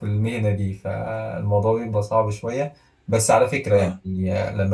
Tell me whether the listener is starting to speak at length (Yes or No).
No